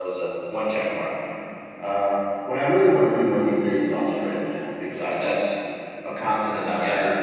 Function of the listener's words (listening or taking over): listening